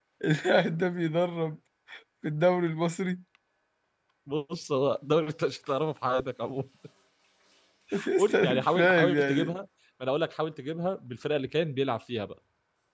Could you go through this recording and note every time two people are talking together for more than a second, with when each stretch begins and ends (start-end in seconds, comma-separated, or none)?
8.2-9.6